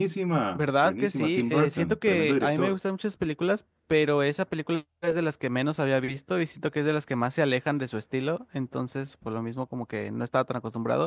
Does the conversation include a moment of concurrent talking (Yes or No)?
Yes